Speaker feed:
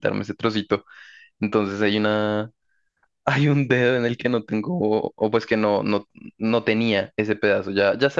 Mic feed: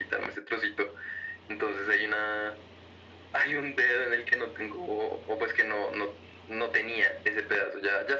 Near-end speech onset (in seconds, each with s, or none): none